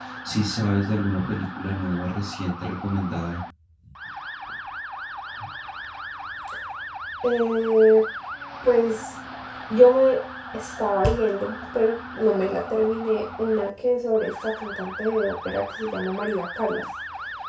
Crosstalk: none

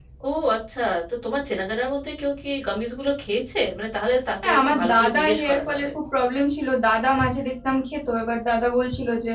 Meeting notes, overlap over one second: present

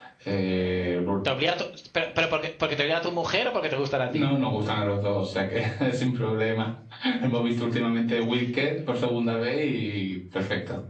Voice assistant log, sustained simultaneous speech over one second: none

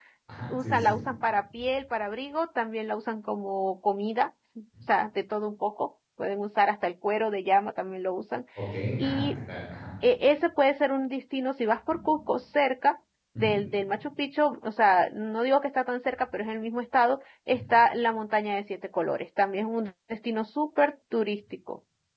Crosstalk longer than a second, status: none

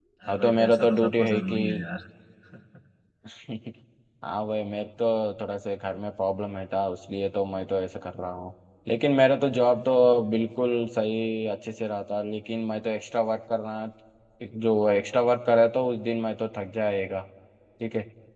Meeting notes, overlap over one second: present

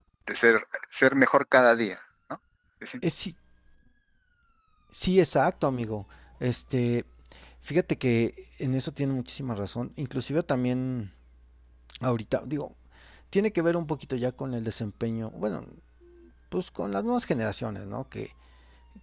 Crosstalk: none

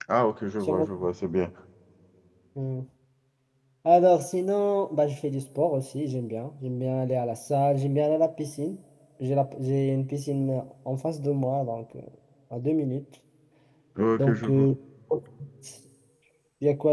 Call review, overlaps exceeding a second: none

